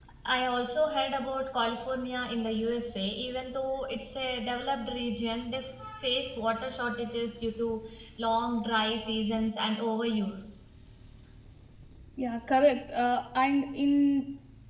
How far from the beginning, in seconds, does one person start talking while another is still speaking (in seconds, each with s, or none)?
none